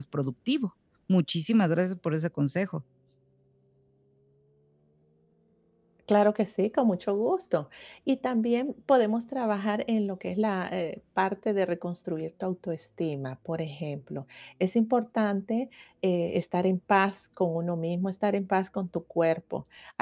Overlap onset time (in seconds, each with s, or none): none